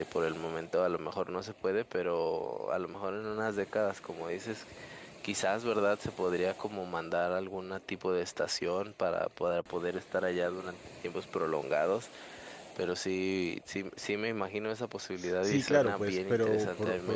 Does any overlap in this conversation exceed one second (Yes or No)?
Yes